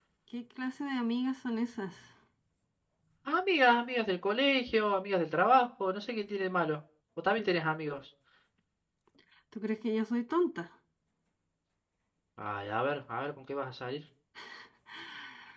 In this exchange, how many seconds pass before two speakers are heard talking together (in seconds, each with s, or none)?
none